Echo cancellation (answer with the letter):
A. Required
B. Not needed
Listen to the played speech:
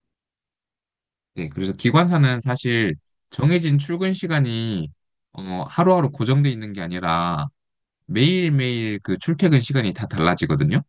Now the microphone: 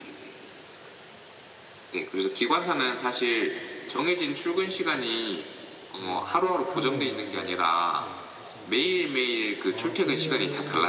A